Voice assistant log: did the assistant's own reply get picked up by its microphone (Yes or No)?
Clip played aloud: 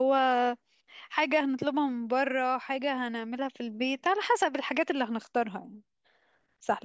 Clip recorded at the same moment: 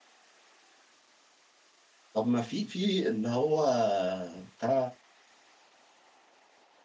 No